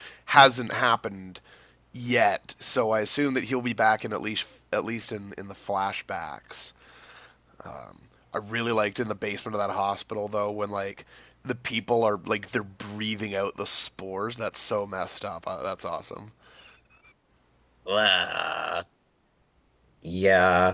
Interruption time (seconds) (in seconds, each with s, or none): none